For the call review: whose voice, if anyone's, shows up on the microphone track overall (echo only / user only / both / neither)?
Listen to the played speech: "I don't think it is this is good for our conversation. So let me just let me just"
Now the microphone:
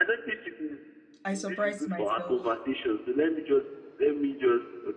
both